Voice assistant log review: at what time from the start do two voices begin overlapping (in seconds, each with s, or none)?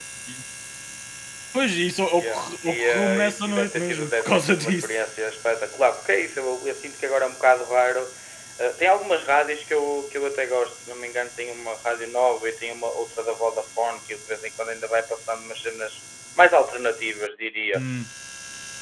2.2 s